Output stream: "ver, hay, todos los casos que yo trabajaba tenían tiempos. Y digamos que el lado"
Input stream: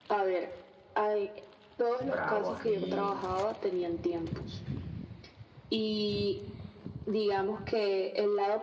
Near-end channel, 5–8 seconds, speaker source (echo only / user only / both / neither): echo only